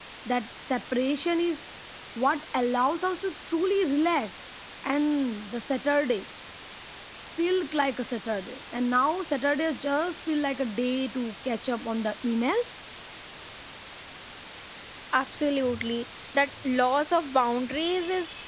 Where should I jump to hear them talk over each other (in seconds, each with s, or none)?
none